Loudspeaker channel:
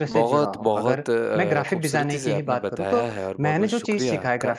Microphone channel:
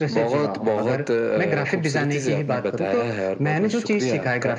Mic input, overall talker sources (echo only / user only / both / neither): echo only